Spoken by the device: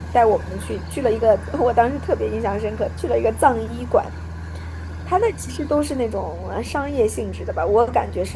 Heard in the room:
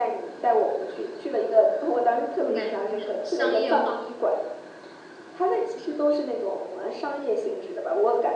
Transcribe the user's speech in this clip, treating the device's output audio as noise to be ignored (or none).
这么感觉有点商业化